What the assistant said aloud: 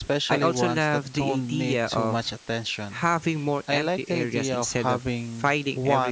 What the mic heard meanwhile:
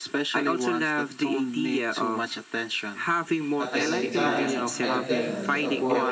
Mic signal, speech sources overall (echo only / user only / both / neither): both